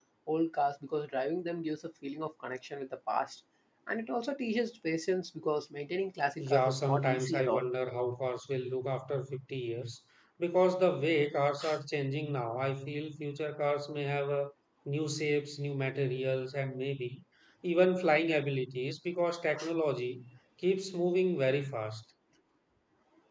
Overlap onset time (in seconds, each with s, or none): 6.4 s